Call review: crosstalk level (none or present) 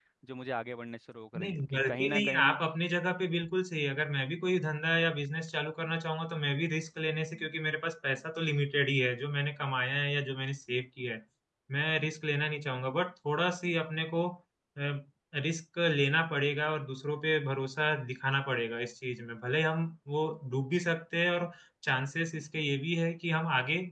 present